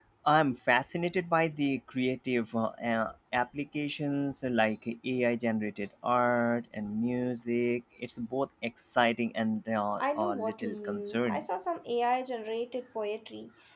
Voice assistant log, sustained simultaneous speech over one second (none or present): present